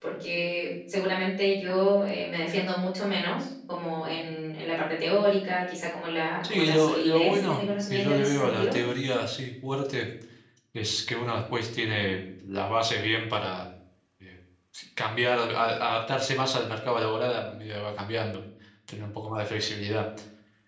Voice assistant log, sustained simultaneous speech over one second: present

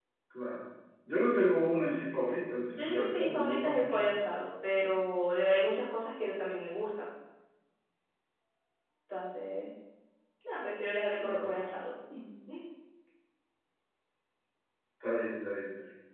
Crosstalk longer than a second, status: present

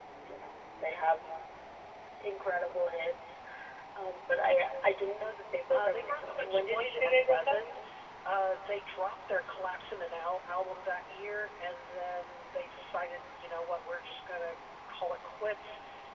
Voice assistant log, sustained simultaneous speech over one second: present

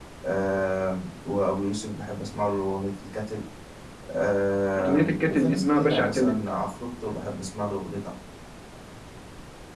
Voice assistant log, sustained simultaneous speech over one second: present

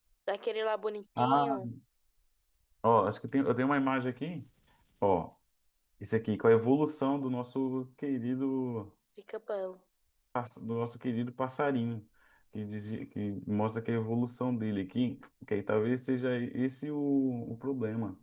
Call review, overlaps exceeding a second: none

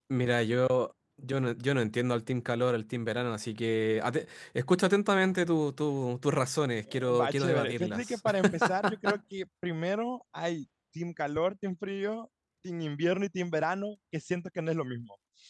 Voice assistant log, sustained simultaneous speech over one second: present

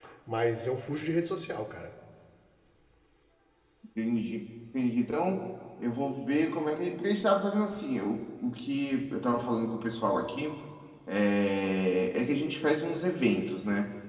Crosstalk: none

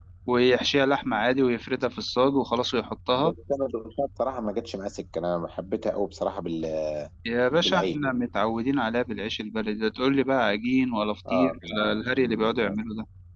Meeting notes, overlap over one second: present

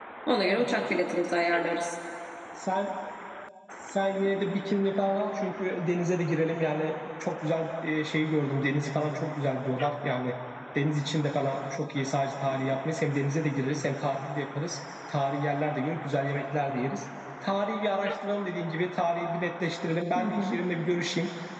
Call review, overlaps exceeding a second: none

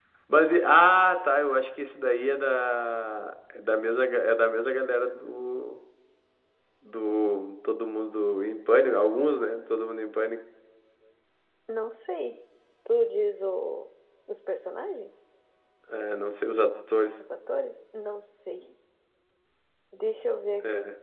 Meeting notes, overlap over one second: none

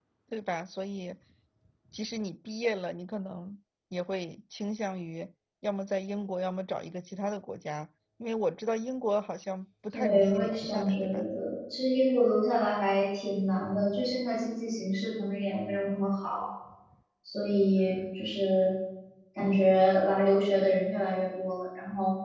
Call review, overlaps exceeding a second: present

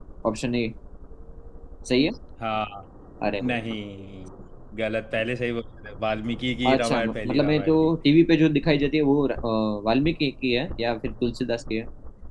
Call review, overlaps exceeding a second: present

